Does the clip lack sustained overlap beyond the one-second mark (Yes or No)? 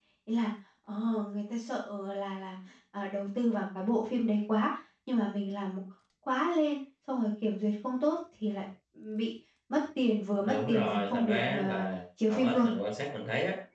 No